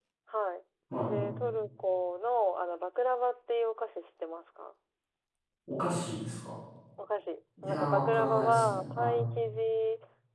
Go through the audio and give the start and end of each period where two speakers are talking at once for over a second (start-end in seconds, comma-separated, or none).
7.6-9.2